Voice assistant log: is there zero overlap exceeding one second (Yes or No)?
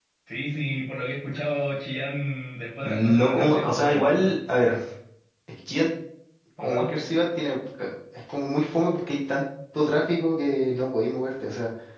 No